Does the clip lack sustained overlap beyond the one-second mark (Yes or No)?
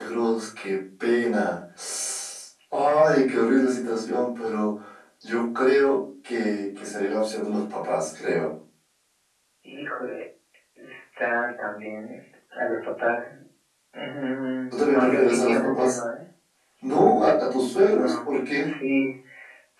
No